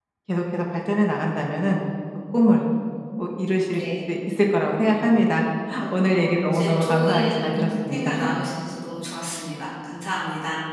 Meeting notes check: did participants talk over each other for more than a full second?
Yes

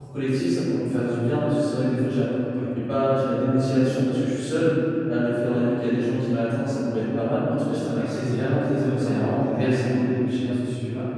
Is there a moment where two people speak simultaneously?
Yes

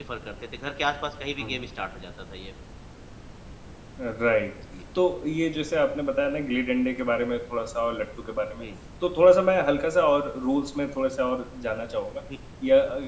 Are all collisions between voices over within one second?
Yes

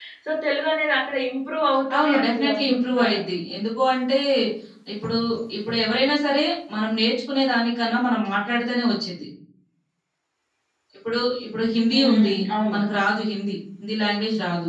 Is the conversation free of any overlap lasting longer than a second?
No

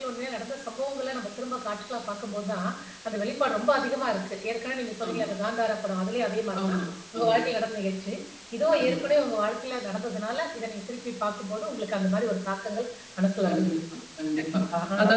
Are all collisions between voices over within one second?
Yes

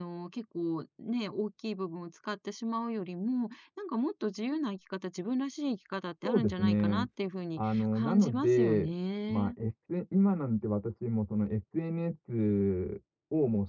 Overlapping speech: Yes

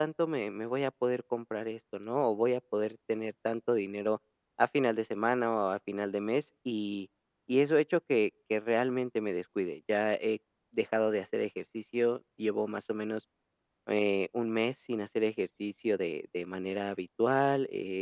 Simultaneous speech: No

